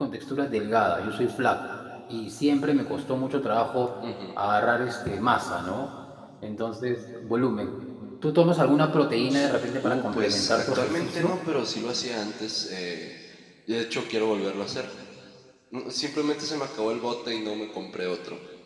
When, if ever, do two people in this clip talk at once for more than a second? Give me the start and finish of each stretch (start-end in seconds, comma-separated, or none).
9.8-11.3